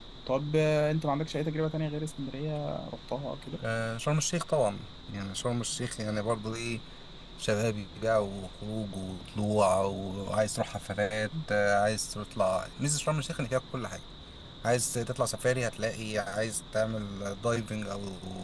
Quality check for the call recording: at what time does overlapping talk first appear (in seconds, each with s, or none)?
none